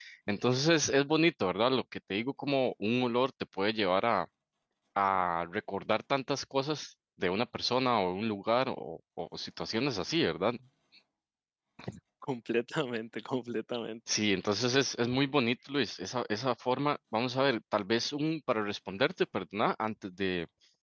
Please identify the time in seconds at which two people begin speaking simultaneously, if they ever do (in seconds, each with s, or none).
none